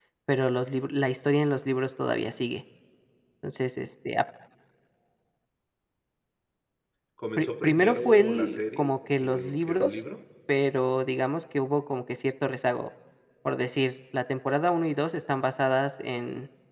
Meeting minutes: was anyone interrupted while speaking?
Yes, from 7.4 s

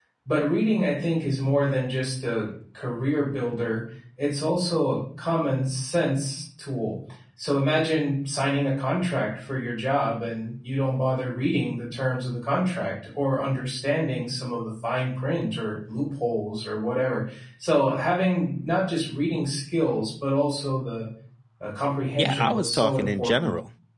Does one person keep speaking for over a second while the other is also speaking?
Yes, from 22.2 s

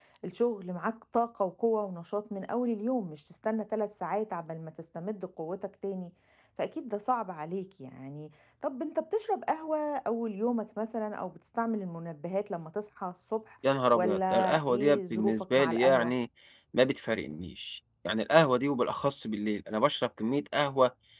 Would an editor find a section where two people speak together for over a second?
Yes, from 13.9 s

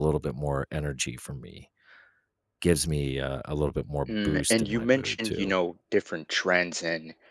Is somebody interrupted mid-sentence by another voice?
Yes, from 4.1 s

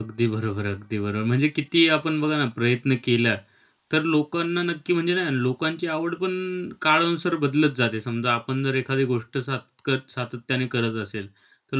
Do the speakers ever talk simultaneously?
No

